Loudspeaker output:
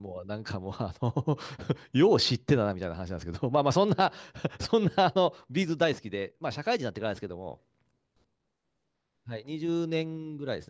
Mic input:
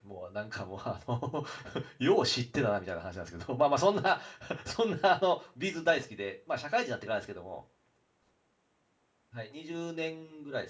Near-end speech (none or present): none